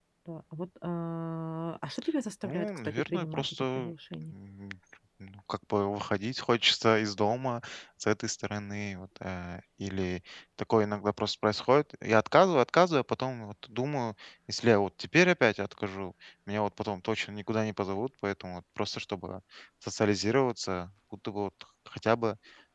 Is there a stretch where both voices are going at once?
Yes, from 2.4 s

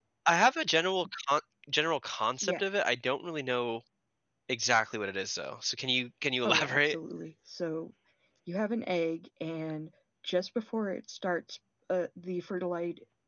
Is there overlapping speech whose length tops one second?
No

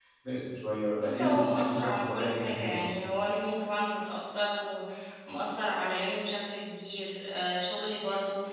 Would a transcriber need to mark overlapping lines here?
Yes, from 1.0 s

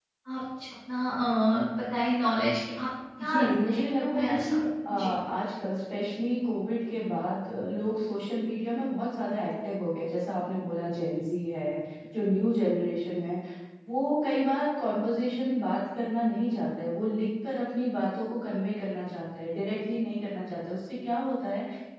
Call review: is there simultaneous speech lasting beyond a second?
Yes, from 3.2 s

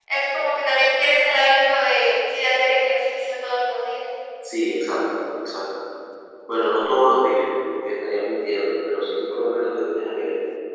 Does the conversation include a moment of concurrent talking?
No

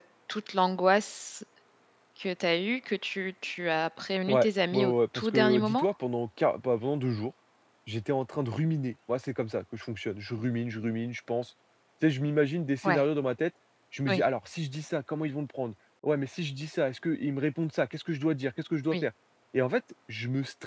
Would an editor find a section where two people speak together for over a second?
Yes, from 4.3 s

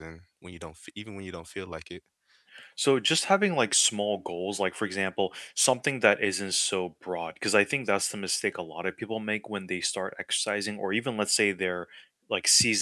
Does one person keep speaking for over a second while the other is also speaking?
No

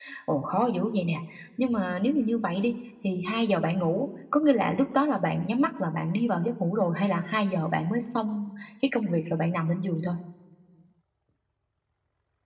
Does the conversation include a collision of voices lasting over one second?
No

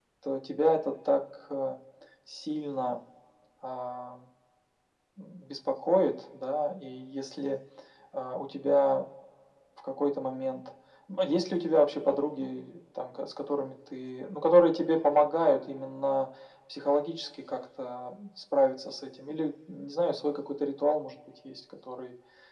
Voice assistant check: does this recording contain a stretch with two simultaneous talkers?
No

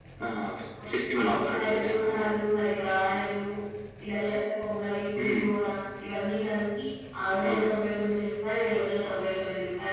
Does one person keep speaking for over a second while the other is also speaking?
Yes, from 1.2 s

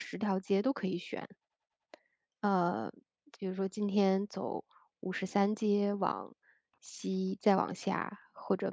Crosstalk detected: No

